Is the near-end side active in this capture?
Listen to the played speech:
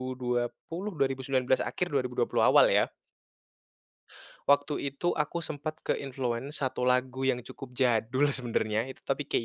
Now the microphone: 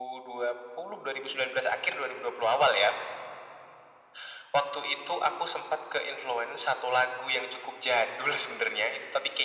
No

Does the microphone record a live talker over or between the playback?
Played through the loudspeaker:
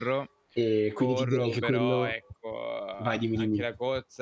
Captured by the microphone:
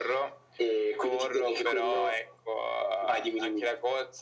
No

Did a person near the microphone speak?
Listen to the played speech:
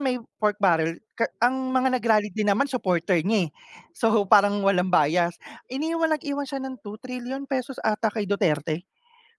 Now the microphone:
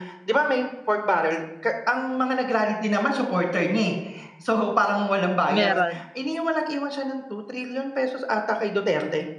Yes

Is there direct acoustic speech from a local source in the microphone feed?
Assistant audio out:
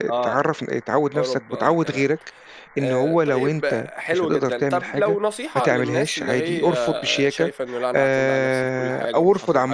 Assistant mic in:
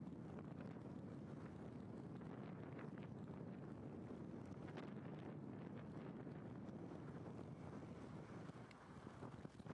No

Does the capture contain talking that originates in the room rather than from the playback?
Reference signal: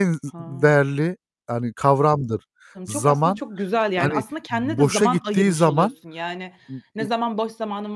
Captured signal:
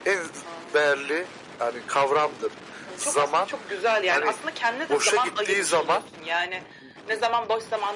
No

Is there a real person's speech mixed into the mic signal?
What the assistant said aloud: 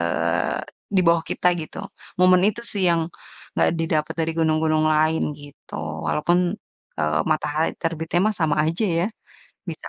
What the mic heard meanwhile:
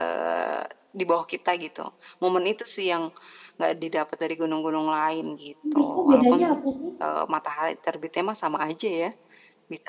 Yes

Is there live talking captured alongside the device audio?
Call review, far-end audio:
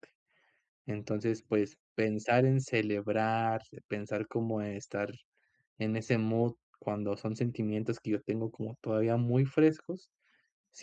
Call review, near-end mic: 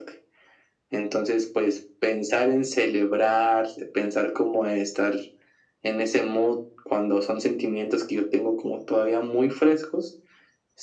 No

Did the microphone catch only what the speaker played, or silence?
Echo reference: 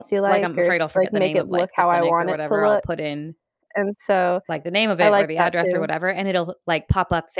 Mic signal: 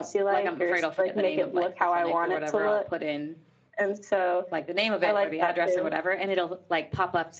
Yes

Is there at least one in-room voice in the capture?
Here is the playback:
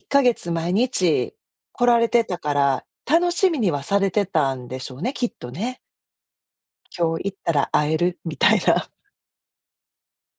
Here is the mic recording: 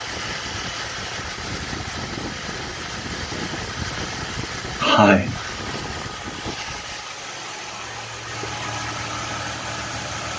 Yes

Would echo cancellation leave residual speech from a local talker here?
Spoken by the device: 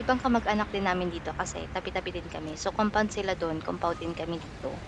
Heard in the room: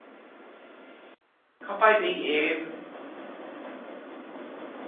Yes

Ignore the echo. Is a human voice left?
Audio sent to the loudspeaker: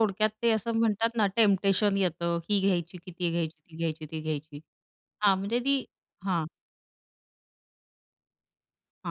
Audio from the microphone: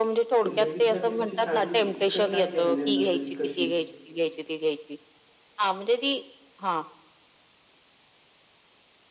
Yes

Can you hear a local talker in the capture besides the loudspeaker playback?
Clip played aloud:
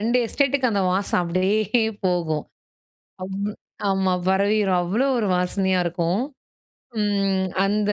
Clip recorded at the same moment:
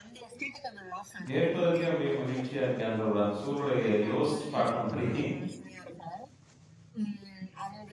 Yes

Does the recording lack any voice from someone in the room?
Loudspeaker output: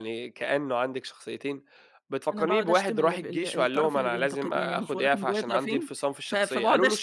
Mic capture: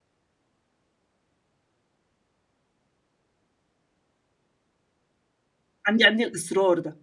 No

